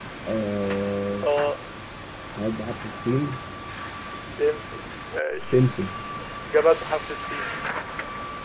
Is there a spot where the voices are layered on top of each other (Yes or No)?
No